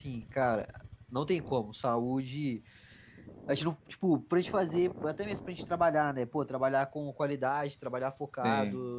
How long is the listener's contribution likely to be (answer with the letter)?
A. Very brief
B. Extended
A